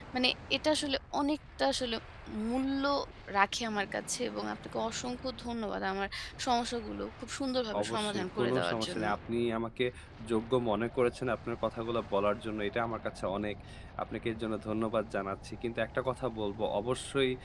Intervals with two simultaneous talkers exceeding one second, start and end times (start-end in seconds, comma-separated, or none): 7.8-9.1